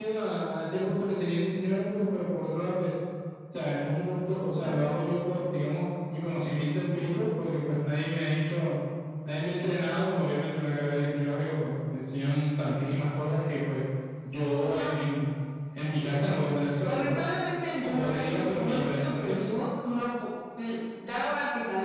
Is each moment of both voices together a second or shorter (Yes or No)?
No